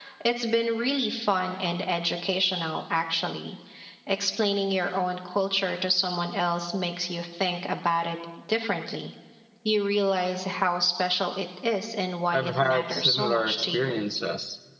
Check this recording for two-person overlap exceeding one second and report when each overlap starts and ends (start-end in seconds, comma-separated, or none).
12.3-14.0